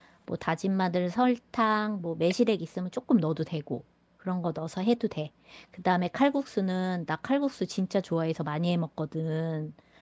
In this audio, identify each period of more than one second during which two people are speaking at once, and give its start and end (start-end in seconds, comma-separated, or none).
none